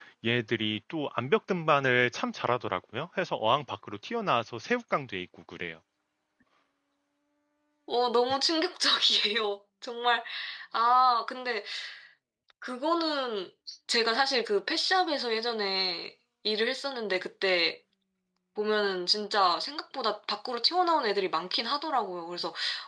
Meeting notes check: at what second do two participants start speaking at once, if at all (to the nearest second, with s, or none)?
none